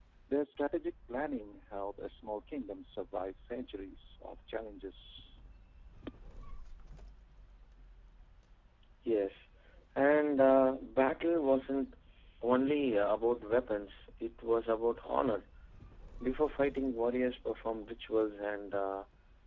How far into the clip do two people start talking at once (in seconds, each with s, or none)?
none